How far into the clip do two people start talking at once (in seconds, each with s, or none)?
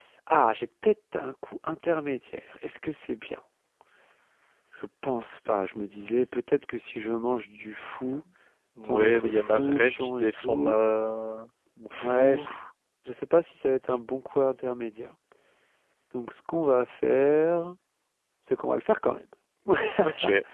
8.8 s